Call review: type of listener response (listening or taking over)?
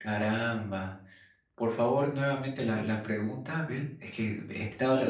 taking over